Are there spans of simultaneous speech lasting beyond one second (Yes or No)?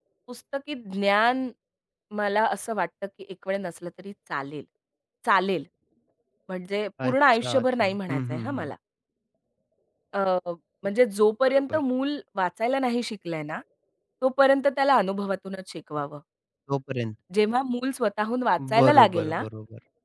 Yes